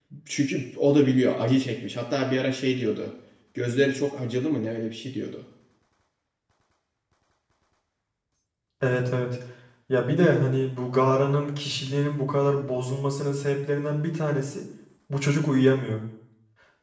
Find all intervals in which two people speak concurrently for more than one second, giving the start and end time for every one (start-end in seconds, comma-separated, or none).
none